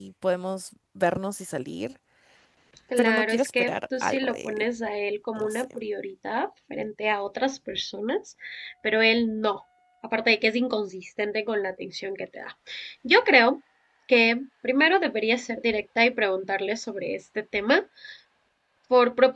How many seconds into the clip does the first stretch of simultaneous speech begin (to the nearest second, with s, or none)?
3 s